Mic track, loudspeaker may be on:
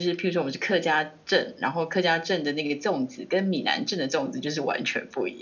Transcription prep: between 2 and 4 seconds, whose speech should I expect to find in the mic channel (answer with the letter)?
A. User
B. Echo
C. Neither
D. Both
A